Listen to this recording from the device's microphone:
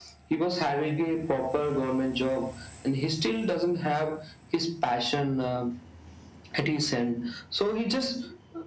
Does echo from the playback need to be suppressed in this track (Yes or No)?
Yes